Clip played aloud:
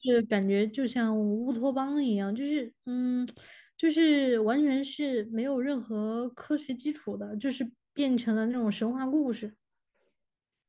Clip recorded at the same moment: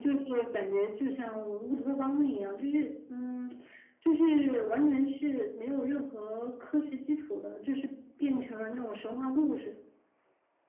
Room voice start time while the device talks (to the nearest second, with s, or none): none